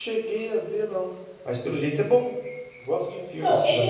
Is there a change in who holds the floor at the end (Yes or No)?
Yes